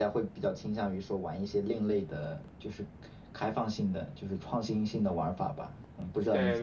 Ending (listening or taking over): taking over